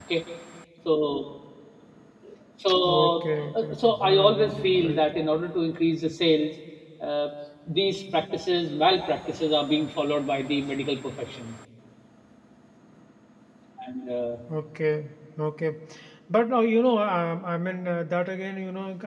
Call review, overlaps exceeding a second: present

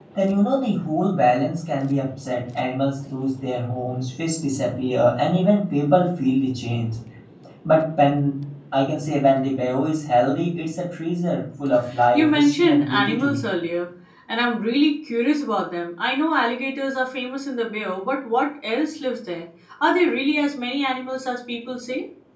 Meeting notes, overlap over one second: present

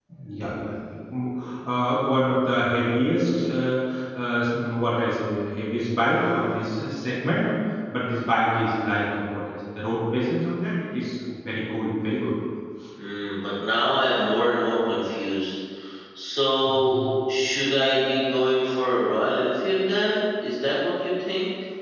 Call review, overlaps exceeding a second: none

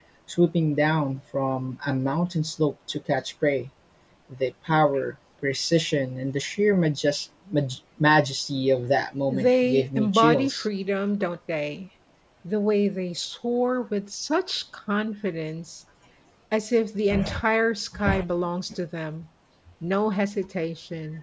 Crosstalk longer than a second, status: present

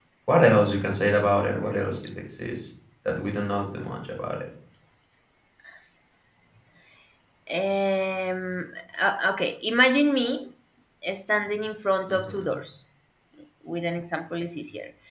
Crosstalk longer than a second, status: none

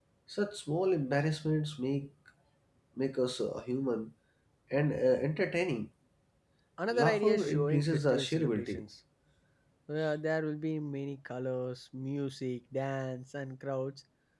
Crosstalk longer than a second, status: present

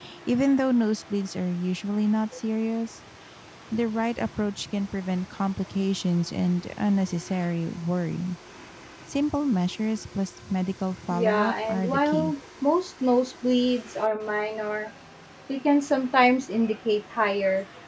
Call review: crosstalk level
present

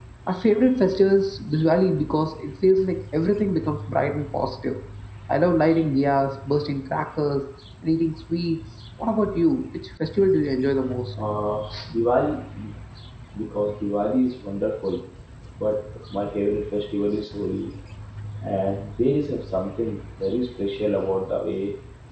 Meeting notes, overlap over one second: none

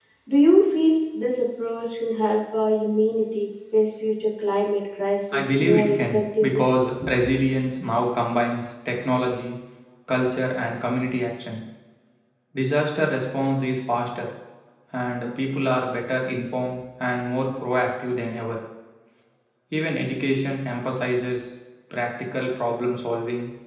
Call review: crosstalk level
present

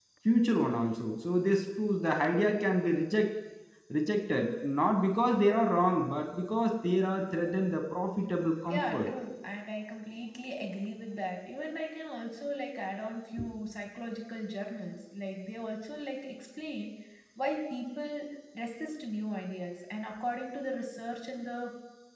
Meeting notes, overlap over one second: none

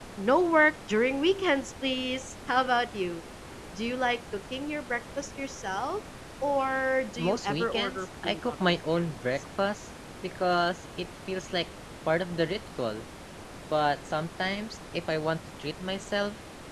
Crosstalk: present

